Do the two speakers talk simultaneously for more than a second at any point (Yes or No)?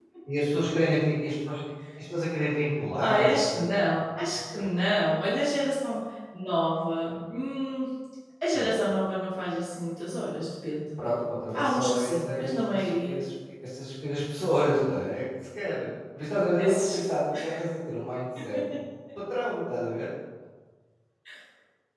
Yes